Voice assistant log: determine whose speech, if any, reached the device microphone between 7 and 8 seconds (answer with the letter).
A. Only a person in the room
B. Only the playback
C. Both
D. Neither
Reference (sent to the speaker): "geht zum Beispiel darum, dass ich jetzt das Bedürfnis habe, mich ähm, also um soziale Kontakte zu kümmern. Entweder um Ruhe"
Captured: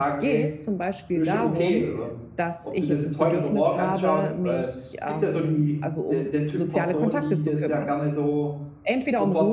C